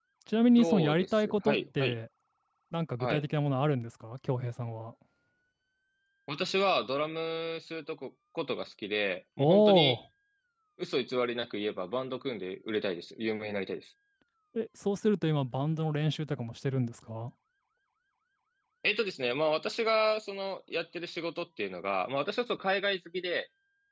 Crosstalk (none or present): present